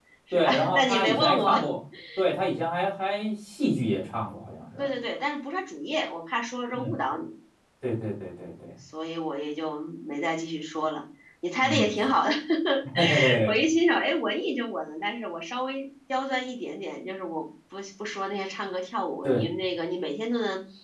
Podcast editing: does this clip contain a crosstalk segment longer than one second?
Yes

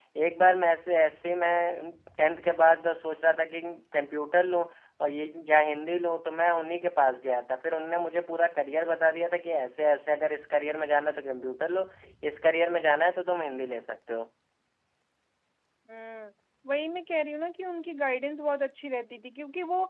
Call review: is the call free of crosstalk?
Yes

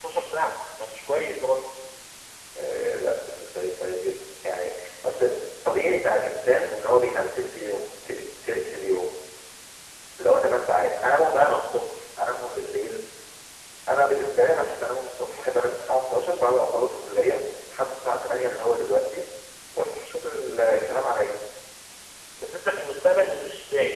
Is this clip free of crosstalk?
Yes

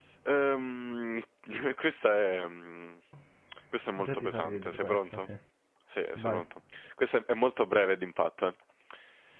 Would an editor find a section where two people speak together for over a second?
Yes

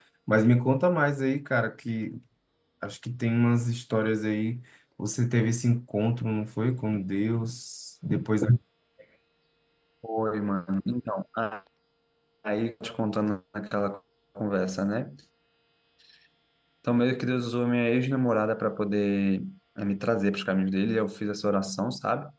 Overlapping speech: No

